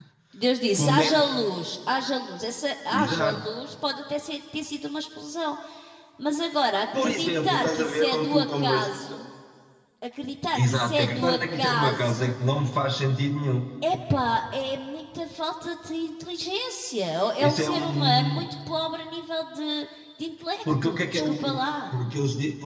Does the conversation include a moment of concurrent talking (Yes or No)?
Yes